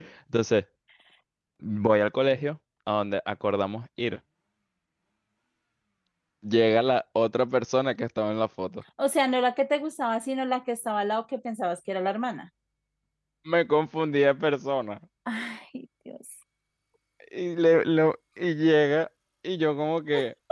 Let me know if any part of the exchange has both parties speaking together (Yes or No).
No